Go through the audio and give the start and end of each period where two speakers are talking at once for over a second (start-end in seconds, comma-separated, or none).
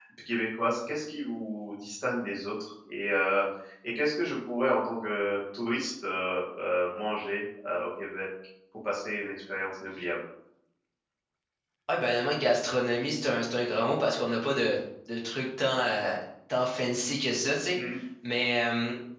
none